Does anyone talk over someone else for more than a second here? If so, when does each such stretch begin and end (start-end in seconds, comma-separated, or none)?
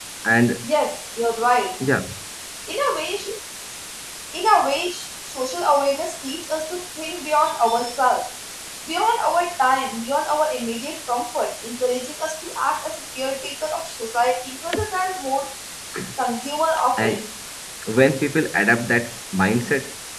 none